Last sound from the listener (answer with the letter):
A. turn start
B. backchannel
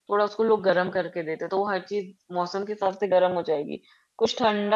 B